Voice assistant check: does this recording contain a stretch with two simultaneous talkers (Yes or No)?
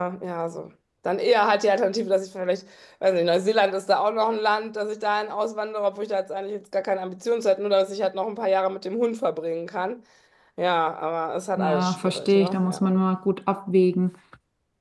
Yes